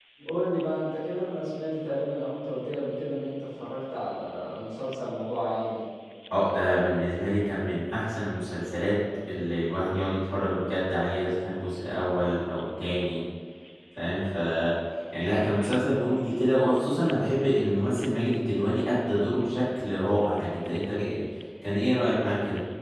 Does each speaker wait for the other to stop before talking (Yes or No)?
Yes